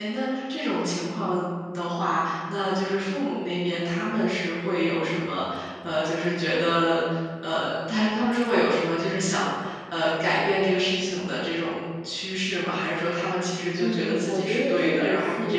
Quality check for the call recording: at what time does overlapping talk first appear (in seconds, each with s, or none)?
13.8 s